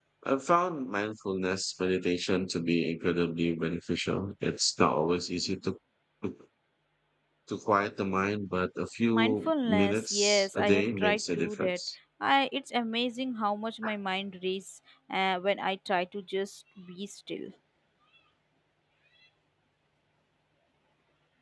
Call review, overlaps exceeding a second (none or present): present